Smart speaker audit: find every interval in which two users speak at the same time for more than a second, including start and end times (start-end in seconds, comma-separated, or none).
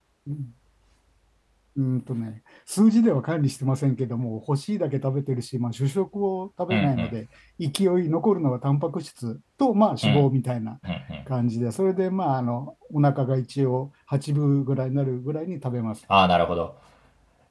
none